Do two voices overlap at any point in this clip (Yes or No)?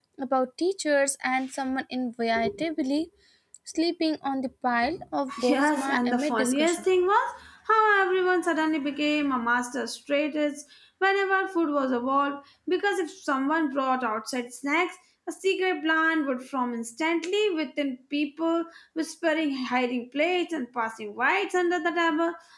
Yes